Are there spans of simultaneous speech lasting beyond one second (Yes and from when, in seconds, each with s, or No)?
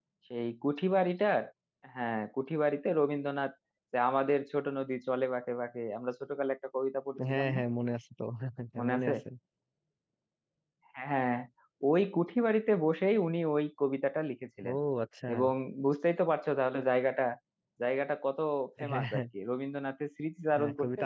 No